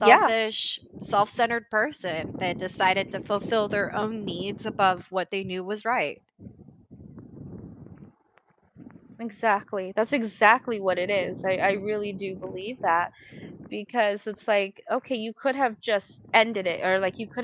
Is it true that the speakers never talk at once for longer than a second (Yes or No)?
Yes